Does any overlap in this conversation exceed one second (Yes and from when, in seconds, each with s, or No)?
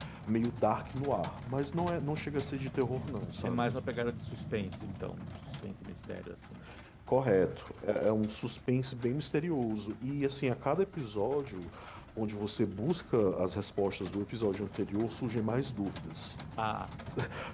No